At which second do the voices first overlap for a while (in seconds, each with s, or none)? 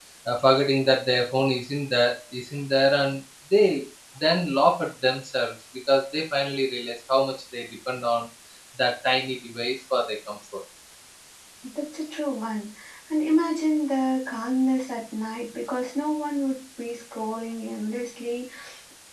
none